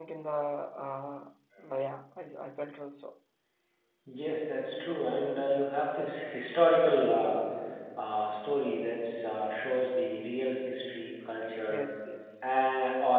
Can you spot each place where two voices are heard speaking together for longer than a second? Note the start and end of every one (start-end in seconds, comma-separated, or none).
none